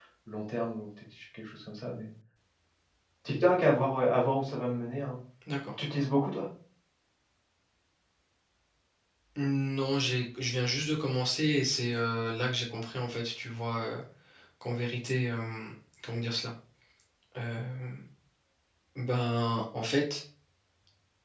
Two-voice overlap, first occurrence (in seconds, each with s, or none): none